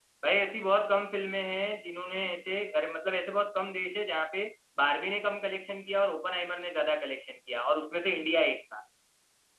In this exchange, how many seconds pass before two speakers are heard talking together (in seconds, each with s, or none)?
none